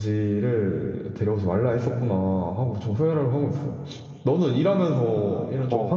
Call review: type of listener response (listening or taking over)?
listening